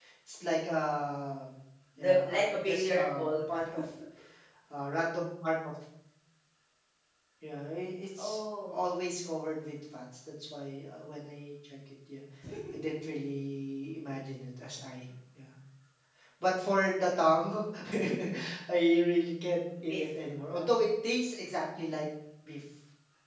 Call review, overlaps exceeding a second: present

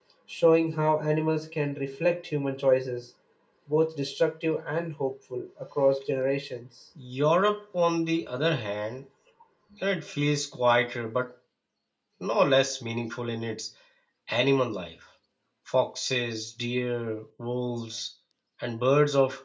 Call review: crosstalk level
none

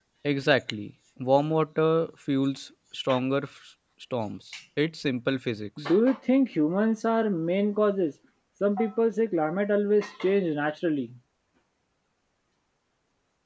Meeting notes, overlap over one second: none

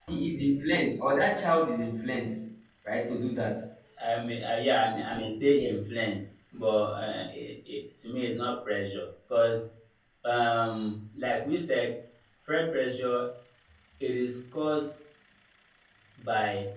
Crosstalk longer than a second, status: none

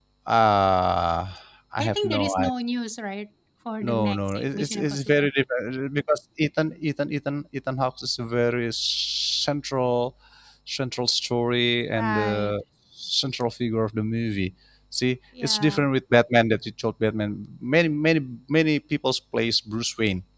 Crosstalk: present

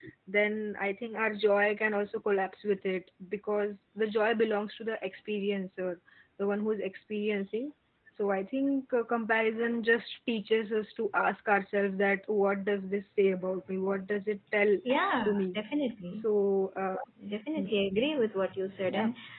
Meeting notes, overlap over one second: none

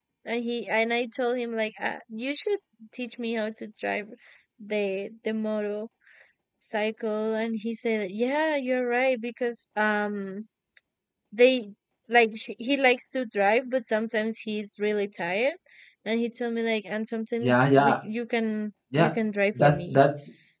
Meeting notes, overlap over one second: none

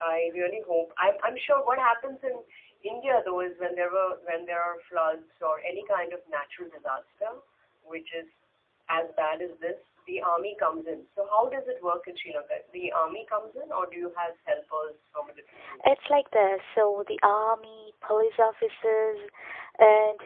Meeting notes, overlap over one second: none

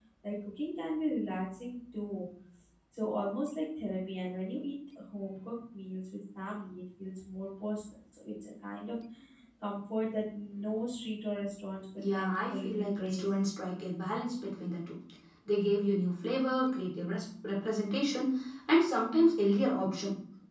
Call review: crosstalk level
present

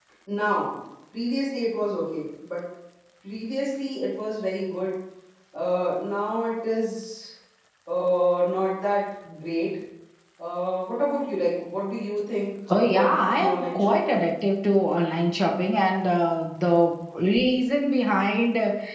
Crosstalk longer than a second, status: present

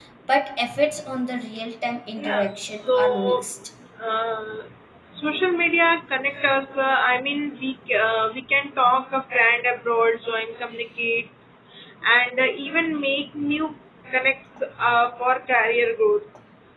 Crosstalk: present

